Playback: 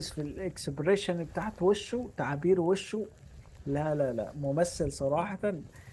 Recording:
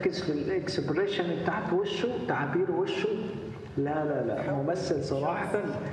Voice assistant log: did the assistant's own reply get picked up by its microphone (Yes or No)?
Yes